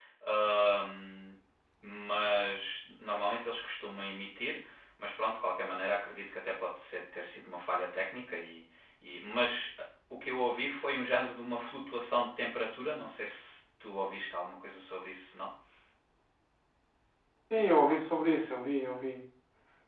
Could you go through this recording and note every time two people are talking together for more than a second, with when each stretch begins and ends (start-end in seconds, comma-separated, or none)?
none